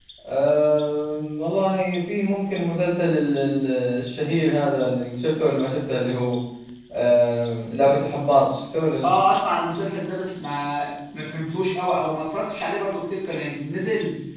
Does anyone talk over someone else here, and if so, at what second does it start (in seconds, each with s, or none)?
none